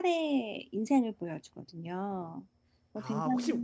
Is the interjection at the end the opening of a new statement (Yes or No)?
Yes